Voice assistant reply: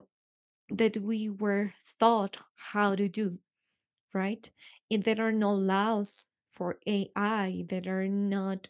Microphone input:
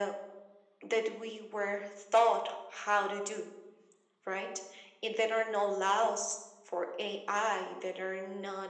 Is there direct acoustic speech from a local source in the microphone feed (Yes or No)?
No